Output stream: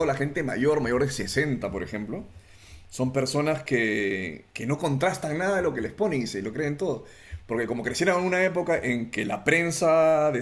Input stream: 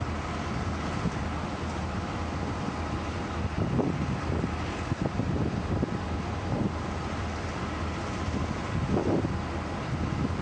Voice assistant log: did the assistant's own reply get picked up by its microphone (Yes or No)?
No